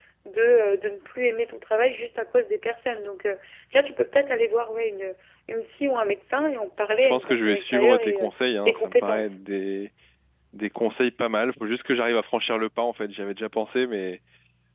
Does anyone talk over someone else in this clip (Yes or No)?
Yes